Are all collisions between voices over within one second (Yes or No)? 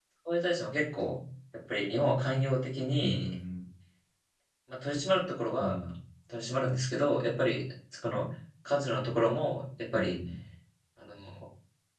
Yes